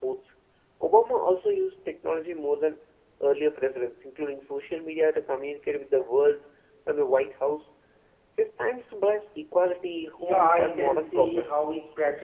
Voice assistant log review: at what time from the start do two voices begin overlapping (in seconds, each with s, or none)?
10.2 s